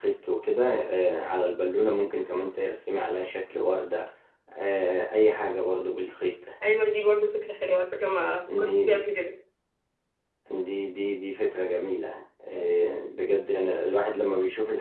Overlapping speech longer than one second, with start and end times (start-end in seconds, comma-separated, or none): none